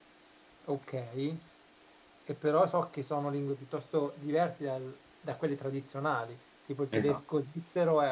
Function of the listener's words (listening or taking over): listening